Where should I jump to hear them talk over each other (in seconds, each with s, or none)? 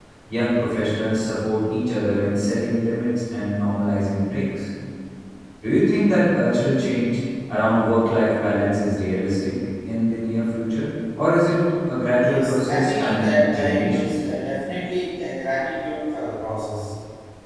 12.2 s